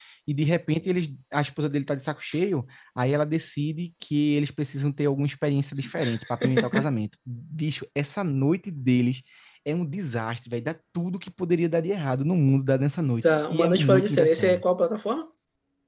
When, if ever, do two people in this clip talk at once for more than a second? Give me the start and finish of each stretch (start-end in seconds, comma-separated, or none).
13.3-14.6